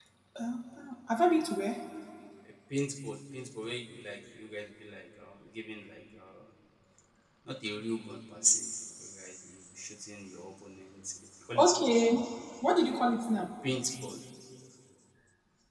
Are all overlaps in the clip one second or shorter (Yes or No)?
Yes